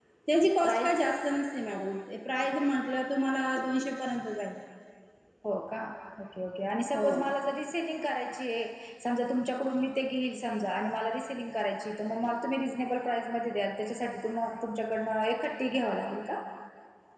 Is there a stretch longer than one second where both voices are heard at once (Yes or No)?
No